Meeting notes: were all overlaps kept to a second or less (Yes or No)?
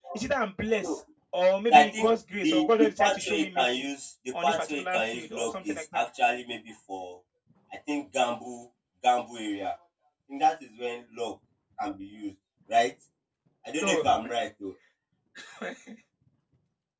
No